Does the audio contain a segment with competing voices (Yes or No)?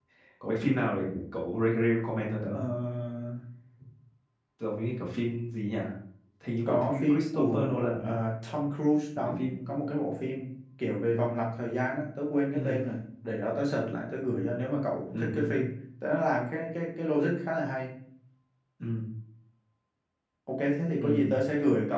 Yes